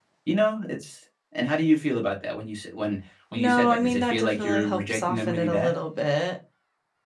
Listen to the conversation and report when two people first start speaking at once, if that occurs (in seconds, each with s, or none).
3.4 s